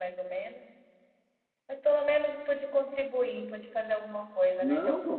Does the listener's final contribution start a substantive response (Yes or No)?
Yes